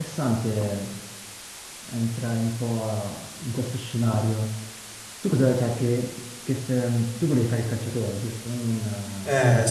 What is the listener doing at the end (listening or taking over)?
taking over